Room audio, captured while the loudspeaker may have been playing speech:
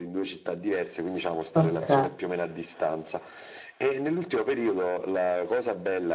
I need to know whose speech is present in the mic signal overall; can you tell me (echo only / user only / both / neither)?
both